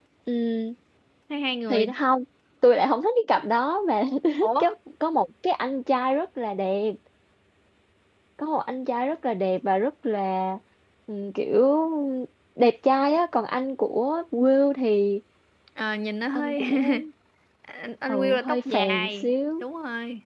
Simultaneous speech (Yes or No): Yes